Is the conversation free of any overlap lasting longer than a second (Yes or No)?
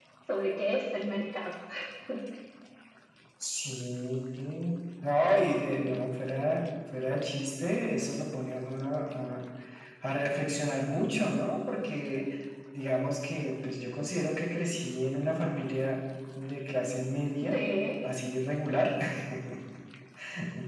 Yes